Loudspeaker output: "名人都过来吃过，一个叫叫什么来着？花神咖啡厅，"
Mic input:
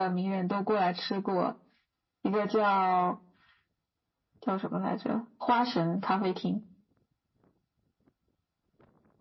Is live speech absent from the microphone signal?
Yes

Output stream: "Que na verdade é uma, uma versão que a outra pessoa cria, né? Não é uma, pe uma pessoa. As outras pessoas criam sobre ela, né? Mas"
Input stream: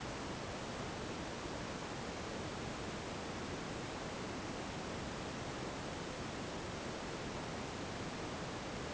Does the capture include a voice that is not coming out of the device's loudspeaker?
No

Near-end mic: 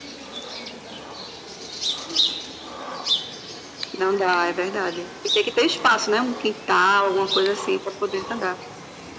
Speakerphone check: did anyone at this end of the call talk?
No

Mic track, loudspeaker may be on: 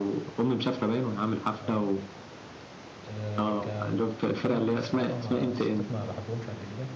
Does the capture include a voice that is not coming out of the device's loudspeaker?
Yes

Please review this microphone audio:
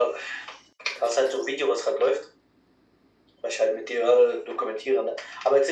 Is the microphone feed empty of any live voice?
Yes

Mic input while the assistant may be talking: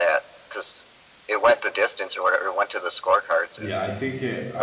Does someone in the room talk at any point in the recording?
Yes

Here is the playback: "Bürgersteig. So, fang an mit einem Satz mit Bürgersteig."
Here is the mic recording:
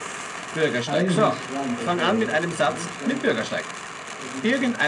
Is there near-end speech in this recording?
Yes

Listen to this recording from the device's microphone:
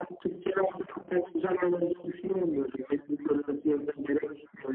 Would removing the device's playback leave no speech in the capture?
Yes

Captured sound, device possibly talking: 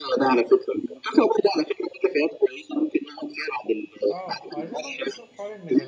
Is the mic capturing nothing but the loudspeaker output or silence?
No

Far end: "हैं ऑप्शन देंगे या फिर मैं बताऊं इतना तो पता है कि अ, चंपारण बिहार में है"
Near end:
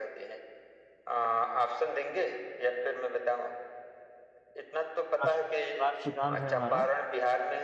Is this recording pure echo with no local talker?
No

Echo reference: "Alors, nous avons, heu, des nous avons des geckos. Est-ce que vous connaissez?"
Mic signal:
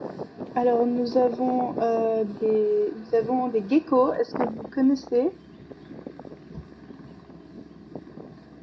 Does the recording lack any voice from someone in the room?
Yes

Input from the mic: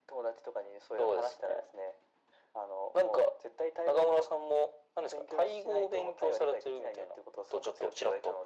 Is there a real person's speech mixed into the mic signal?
No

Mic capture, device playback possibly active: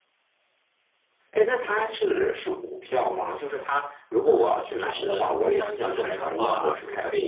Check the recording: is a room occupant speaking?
Yes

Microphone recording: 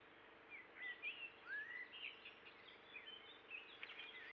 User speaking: No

